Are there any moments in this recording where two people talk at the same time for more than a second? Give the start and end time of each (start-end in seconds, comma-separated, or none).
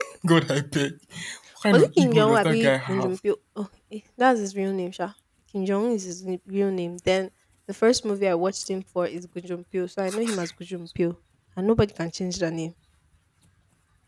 1.7-3.1